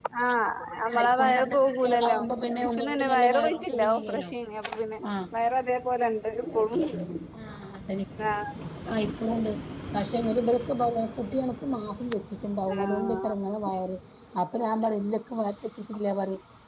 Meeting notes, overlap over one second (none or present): present